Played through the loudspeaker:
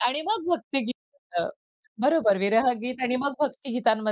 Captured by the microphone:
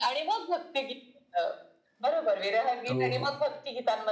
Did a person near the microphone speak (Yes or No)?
Yes